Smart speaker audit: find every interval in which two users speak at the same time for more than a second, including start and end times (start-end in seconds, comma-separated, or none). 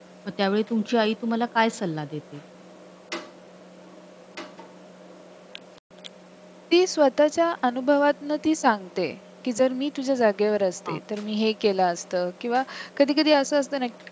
none